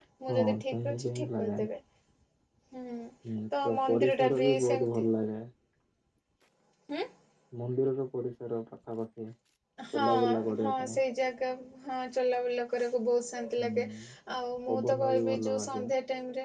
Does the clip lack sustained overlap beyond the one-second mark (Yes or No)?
No